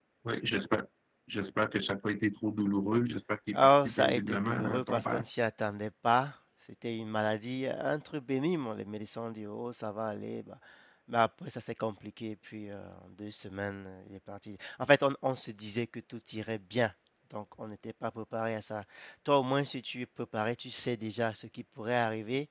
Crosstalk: present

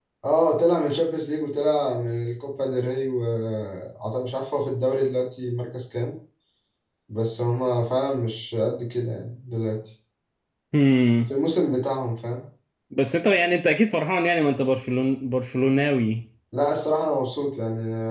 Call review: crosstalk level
none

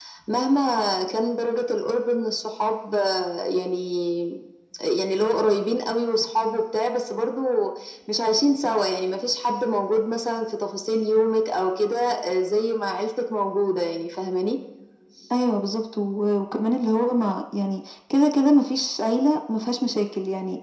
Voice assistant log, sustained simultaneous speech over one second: none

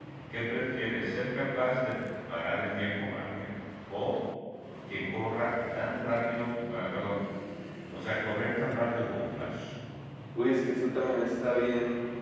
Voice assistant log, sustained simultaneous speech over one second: none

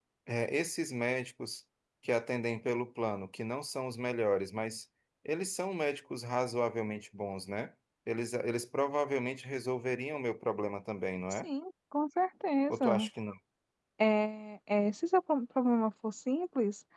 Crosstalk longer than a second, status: none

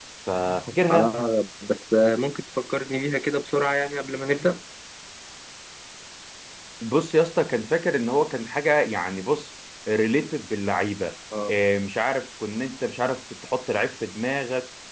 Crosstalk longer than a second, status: none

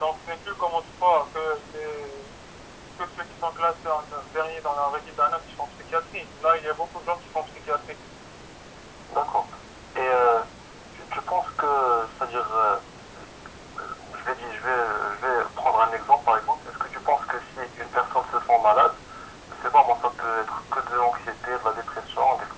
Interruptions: none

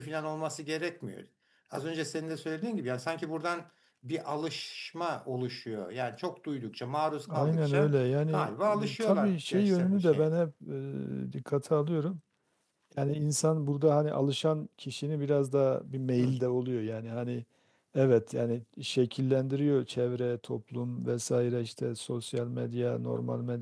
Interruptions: present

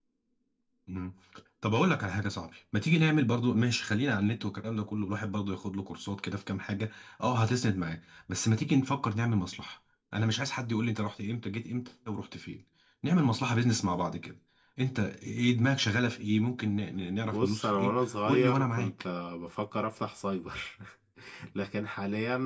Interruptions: present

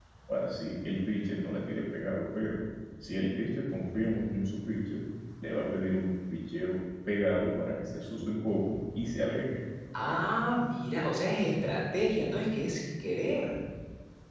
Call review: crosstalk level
none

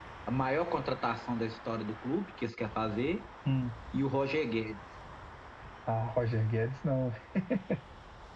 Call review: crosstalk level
none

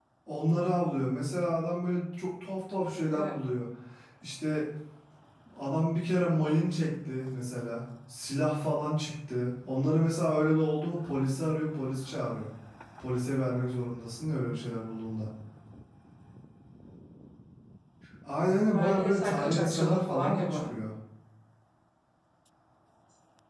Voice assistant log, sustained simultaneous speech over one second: present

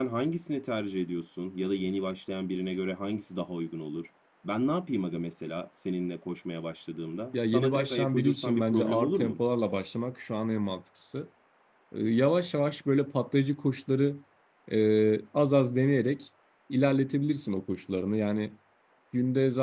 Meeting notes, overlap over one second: present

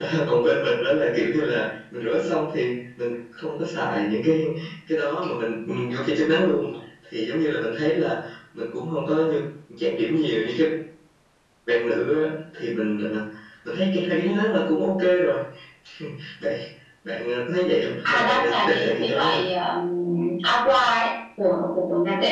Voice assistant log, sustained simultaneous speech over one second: present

